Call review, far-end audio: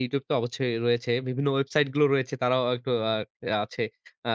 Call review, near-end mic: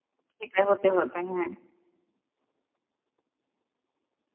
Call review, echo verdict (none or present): none